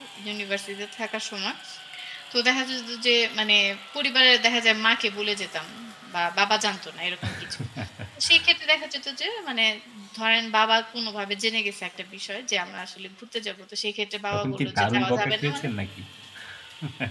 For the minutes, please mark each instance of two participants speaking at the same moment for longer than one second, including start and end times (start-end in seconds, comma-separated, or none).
14.3-15.7